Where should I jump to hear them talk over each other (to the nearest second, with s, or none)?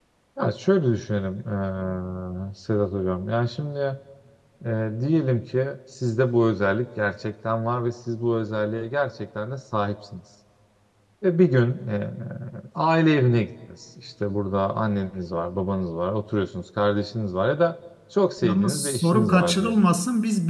18 s